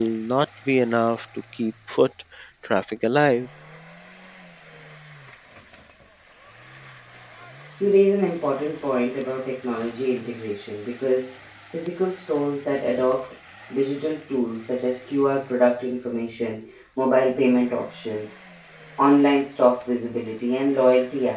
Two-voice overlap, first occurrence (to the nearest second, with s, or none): none